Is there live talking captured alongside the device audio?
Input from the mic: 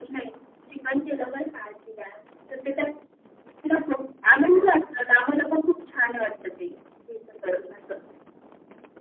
No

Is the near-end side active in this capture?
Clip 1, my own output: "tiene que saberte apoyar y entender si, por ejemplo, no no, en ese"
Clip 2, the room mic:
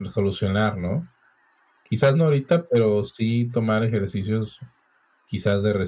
Yes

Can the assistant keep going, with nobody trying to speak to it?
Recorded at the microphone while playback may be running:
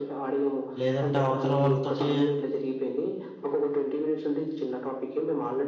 No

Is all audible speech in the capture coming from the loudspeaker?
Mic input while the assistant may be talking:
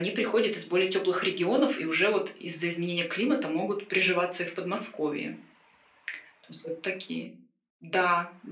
Yes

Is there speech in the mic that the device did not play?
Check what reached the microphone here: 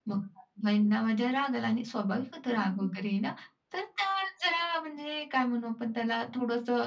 No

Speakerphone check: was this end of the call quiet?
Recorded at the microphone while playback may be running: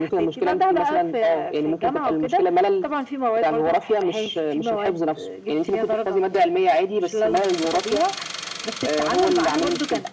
Yes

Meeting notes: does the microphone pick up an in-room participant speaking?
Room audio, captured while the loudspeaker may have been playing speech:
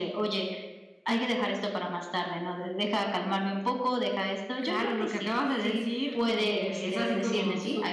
No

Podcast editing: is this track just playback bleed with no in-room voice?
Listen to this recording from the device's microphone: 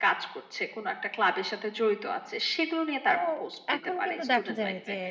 No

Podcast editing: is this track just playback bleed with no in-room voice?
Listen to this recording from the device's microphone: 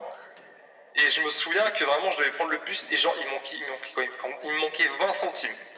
Yes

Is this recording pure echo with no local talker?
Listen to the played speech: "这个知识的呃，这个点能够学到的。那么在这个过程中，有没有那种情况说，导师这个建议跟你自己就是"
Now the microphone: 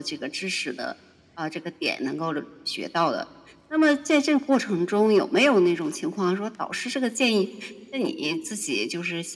Yes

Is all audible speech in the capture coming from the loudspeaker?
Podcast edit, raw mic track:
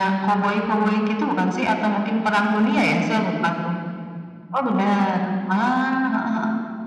Yes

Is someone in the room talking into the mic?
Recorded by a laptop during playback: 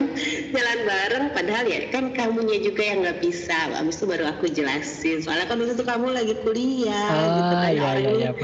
Yes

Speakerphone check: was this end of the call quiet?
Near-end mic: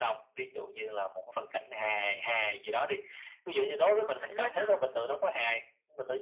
No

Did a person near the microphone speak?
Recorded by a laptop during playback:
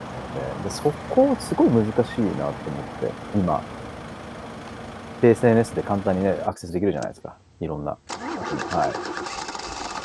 Yes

